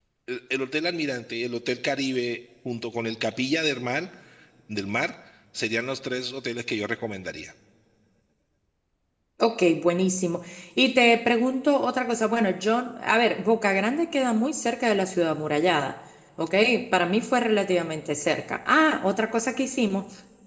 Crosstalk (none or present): none